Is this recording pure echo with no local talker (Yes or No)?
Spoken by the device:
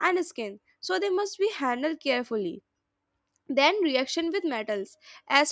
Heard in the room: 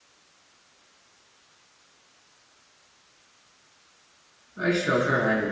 No